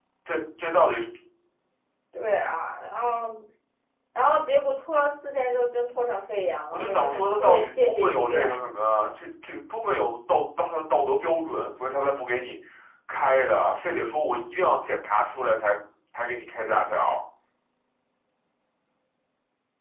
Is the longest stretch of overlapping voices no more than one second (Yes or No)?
No